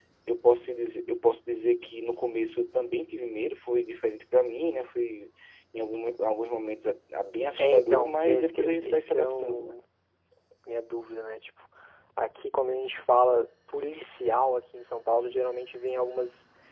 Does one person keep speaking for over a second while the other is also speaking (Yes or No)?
Yes